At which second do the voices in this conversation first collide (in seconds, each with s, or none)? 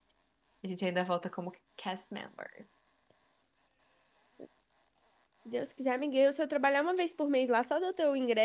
none